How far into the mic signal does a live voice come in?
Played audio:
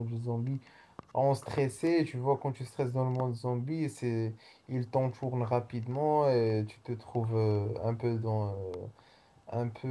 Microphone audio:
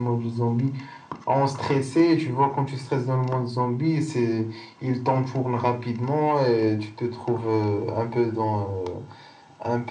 none

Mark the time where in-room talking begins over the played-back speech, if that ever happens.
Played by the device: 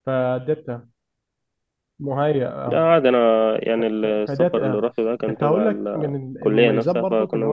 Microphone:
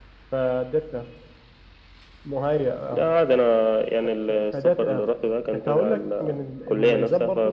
none

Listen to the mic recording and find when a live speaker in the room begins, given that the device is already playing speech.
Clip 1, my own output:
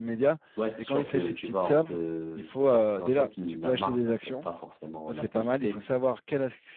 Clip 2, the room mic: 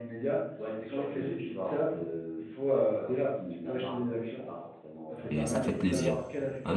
5 s

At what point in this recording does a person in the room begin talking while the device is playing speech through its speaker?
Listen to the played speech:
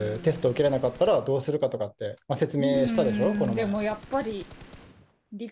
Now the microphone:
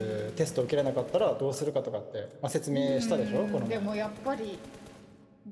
none

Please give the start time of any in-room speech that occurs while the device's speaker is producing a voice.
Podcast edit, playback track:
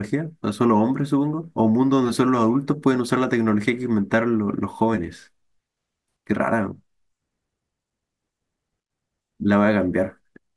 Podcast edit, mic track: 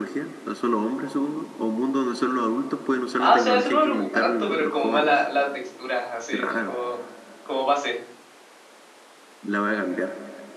3 s

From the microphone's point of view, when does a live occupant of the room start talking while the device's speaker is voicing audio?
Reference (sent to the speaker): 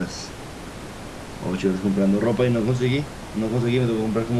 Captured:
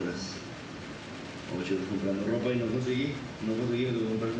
none

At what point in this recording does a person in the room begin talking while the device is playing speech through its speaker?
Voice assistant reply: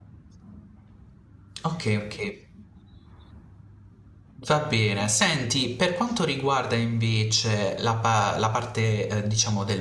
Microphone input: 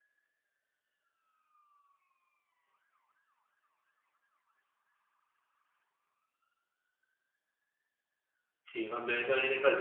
9 s

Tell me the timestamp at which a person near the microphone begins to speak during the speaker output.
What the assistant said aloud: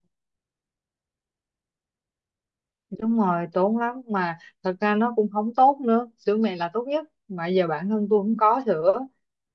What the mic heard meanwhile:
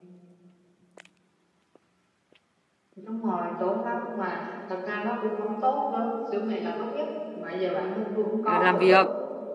8 s

